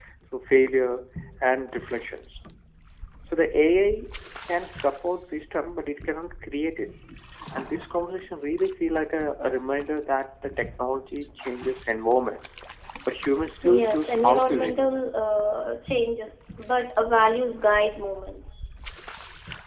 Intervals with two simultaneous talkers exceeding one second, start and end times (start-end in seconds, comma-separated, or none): 13.6-15.0